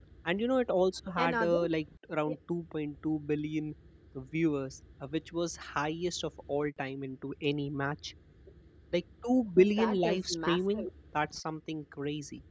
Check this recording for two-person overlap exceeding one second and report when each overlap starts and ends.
9.6-10.8

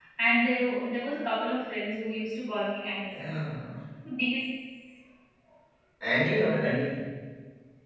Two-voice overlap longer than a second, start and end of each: none

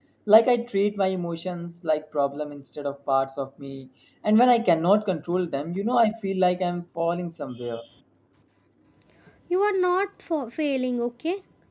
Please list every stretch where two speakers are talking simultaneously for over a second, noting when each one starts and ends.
none

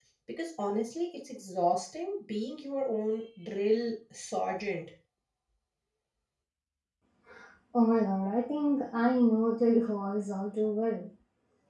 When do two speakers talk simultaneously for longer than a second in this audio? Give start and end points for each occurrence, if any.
none

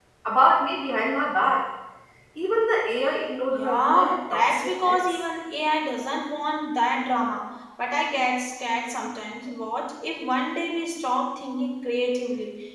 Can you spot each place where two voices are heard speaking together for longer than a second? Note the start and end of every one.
3.5-5.2

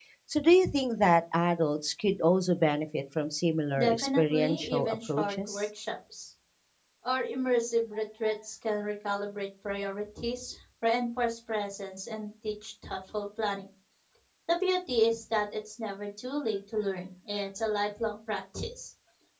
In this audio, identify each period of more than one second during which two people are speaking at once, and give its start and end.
3.8-5.6

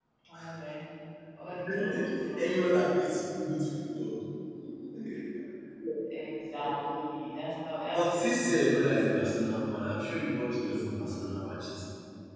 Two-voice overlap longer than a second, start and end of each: none

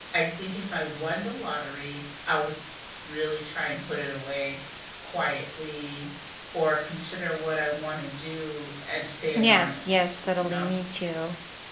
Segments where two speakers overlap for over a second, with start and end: 9.4-10.7

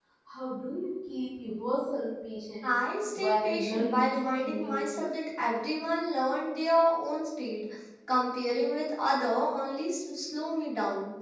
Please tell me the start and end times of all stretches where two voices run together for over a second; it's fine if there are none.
3.2-4.9

